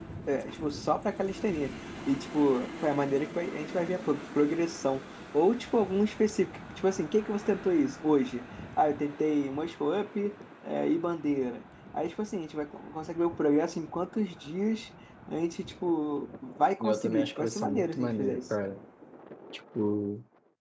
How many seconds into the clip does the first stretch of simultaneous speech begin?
16.8 s

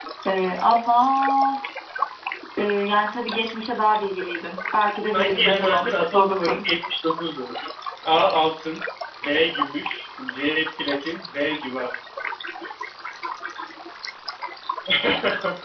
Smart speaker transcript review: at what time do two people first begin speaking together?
5.1 s

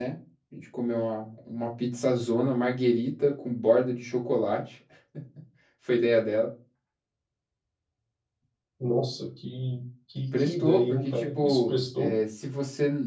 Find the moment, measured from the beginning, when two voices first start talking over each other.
10.3 s

